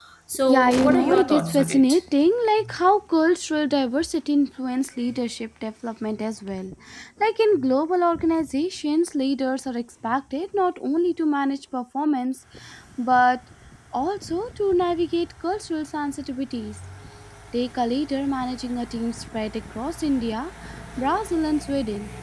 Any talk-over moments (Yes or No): Yes